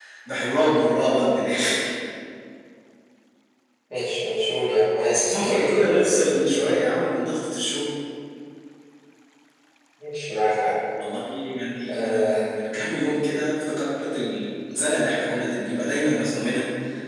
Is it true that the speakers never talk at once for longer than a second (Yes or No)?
No